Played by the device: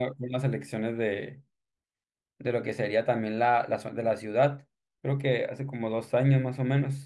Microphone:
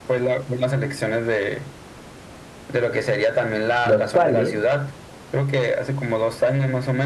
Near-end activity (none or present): present